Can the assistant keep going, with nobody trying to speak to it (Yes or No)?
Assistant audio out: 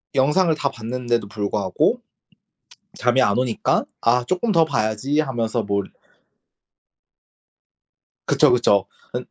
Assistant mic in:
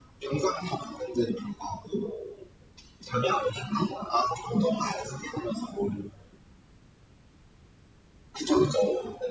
Yes